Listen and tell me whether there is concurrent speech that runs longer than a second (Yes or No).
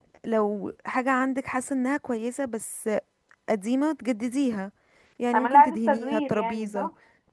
Yes